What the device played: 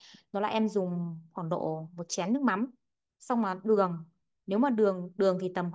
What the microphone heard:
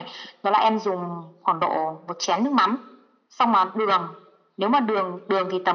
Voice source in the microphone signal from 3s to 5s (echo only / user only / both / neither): echo only